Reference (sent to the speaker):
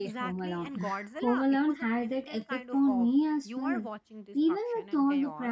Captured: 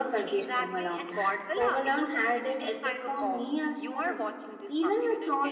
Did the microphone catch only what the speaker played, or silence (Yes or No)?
Yes